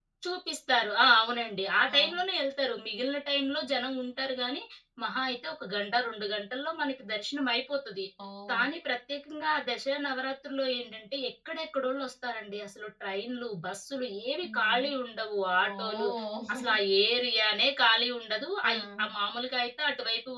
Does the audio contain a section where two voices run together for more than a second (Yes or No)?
No